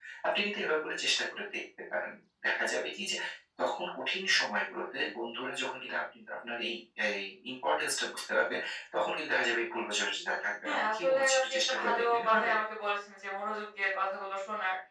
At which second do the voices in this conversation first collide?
11 s

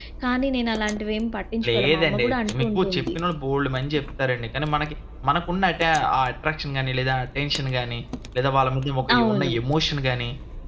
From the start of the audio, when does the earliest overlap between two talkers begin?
2 s

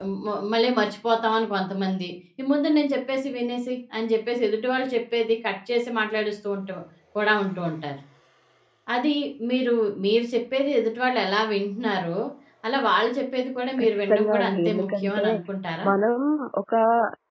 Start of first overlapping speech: 14 s

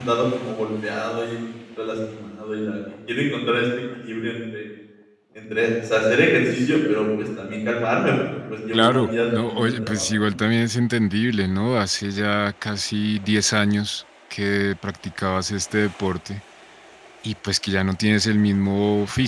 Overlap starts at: 9 s

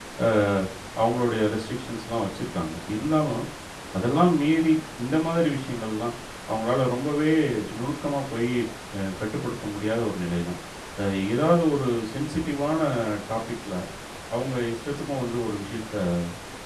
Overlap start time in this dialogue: none

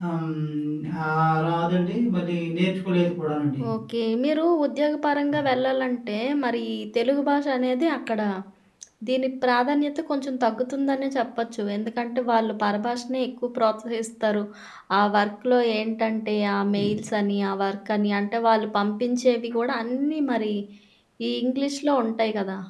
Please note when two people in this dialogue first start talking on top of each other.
none

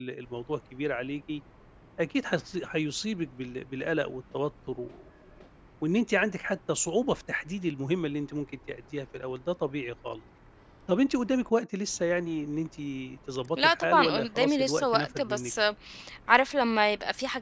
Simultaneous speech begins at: 14 s

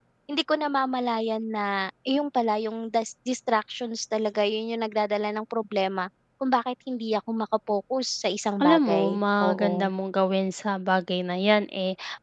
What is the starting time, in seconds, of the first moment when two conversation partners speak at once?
9 s

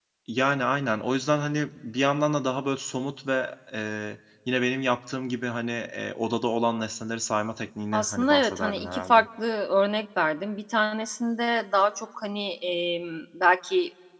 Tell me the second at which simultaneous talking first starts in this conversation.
8 s

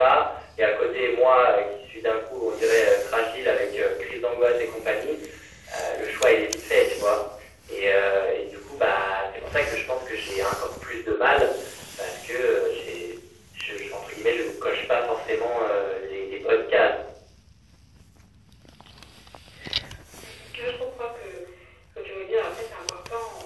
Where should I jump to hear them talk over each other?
none

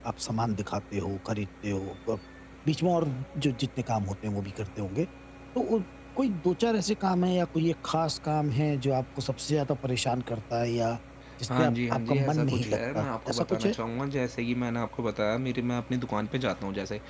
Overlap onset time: 12 s

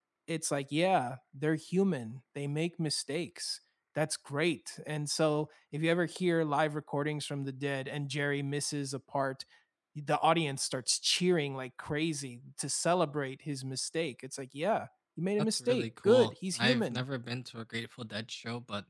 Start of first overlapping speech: 15 s

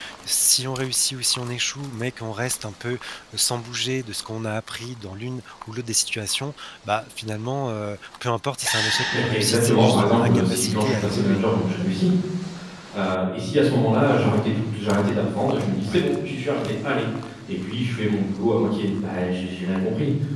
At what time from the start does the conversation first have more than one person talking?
9 s

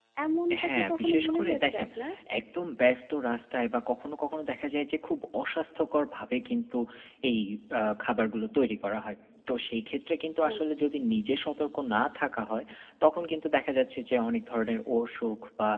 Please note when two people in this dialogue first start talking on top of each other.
1 s

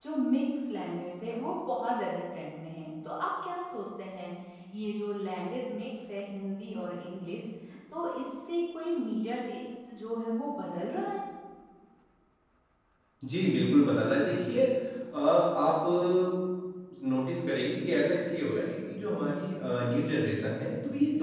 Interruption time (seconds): none

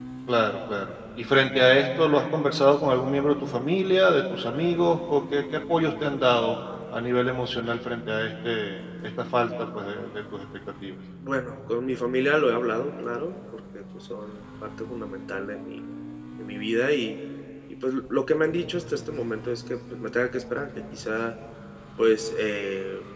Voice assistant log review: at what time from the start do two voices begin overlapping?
none

